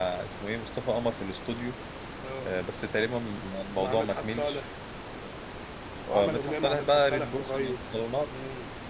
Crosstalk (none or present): present